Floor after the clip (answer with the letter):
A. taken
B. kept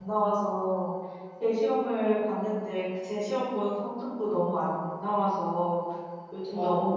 B